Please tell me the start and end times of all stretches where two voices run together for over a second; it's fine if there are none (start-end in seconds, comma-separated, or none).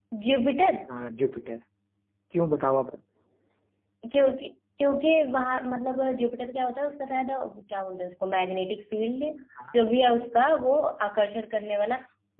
none